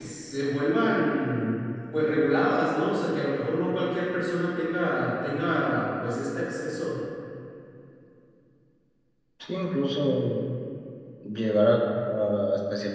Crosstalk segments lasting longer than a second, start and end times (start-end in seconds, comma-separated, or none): none